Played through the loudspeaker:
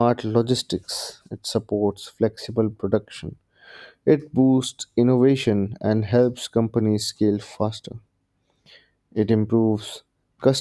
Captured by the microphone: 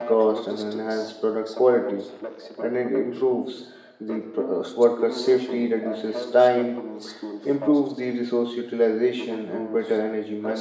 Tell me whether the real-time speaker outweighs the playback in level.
Yes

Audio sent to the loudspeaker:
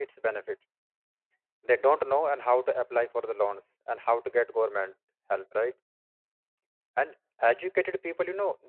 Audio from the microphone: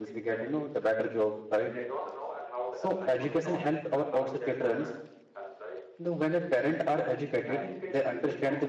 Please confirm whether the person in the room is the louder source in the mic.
Yes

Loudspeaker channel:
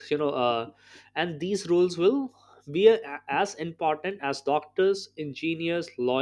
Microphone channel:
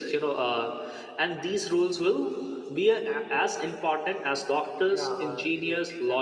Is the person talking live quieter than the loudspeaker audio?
Yes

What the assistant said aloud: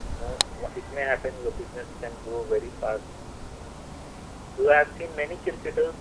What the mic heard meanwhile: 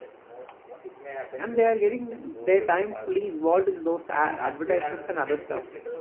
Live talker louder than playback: Yes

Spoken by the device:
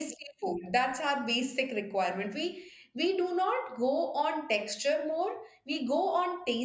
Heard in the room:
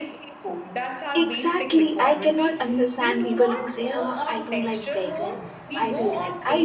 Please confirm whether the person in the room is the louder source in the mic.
Yes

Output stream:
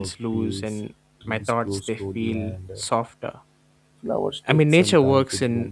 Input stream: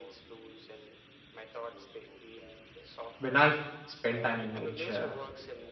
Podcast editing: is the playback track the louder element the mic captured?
No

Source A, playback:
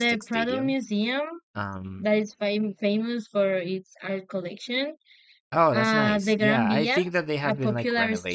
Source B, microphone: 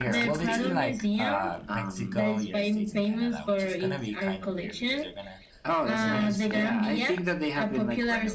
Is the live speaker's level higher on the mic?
No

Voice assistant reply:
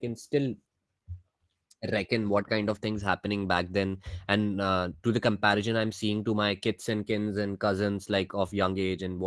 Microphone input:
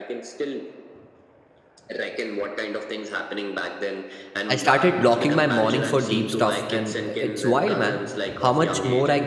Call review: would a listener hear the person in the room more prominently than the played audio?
Yes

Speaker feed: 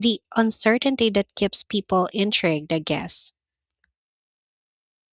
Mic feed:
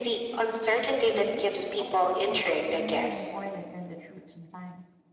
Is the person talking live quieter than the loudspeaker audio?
Yes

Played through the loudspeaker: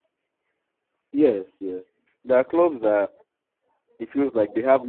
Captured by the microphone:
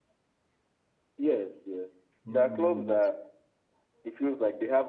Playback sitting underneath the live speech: No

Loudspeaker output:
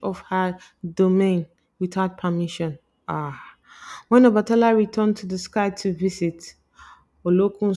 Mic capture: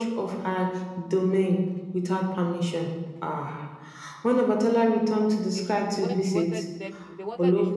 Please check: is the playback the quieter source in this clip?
No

